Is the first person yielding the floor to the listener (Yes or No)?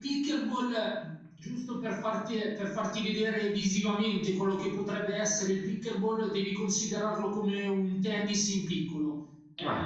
No